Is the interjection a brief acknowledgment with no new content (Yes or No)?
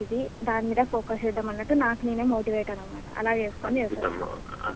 No